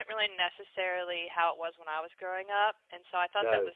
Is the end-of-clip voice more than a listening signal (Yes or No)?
No